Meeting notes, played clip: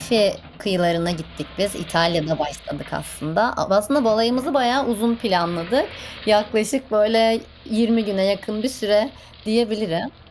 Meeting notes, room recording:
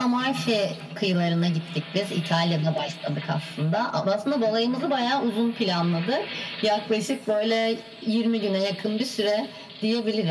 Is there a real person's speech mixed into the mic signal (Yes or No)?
No